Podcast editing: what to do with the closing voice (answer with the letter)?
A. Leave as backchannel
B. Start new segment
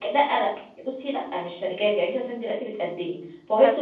A